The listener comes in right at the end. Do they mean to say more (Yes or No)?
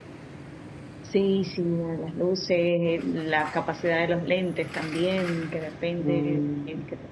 No